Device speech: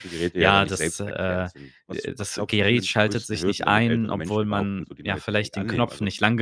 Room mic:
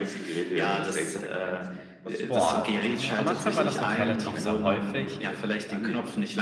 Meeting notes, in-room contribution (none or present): present